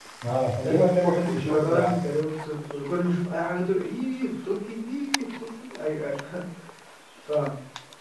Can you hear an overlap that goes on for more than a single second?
No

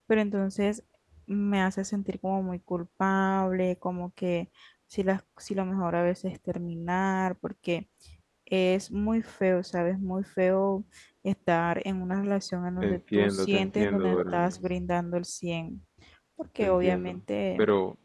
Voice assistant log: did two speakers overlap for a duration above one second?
Yes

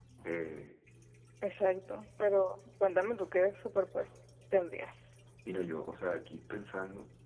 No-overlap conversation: Yes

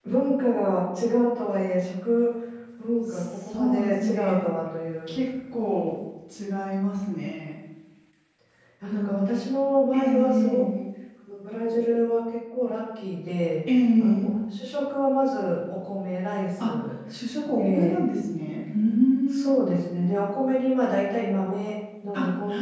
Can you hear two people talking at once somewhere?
Yes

